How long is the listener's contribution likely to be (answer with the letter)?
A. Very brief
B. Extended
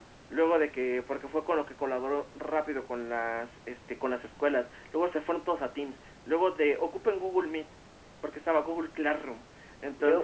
B